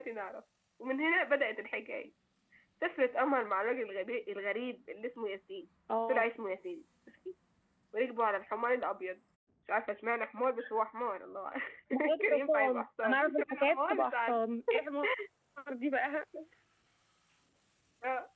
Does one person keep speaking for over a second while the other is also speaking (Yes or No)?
Yes